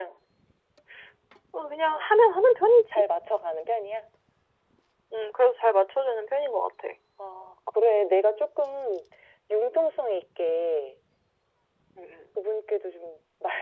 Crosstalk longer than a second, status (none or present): none